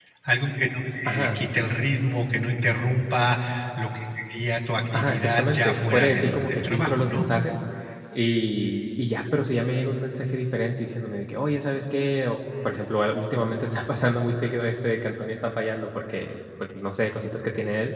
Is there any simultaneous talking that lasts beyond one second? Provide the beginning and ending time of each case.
4.9-7.3

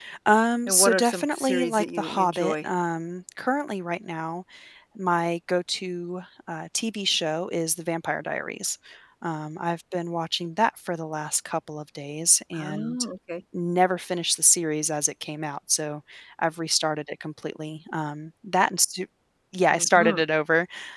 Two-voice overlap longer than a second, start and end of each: 0.7-2.7

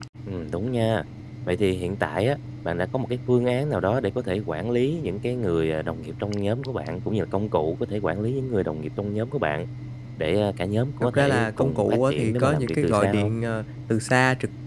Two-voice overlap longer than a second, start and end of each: 11.0-13.3

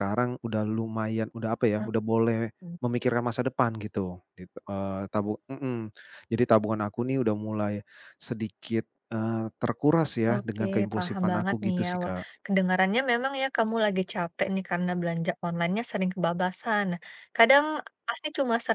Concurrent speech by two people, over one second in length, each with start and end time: 10.3-12.2

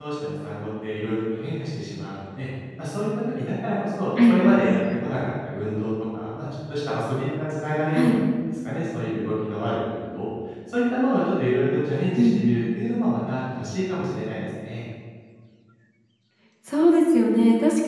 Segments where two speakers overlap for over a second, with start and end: none

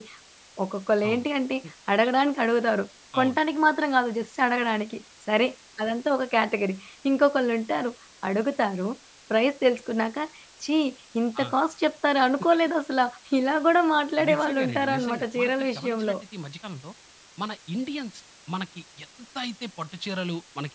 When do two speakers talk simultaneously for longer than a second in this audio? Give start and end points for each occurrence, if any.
14.3-16.2

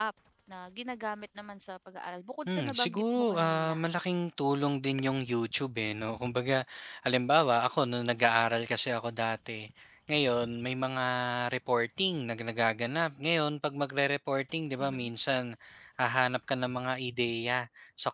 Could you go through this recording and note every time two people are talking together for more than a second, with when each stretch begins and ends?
2.5-3.8

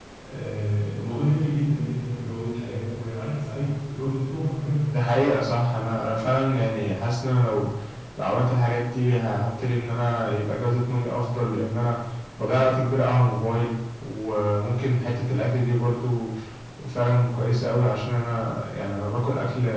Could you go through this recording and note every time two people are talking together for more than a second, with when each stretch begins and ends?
none

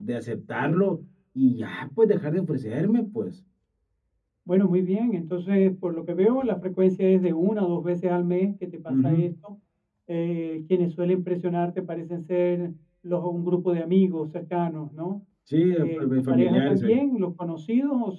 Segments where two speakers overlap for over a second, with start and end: 15.7-17.0

